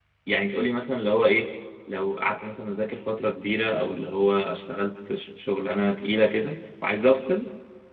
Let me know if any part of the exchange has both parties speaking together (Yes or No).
No